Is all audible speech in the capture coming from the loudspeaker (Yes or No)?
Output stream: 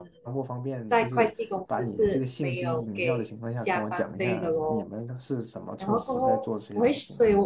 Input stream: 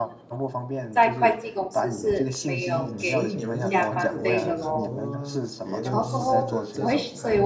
No